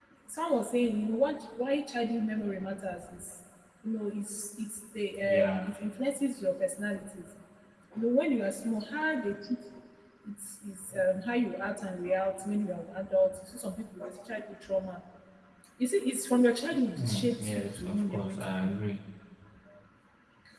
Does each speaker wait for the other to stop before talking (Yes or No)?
No